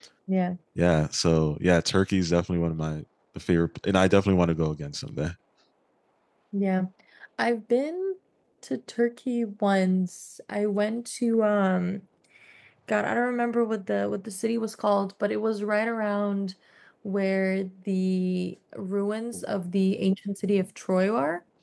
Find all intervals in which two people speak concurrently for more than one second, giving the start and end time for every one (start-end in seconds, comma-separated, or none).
none